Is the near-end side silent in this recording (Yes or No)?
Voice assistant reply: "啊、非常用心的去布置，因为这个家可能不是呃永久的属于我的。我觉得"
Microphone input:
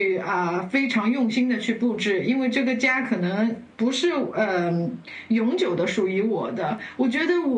Yes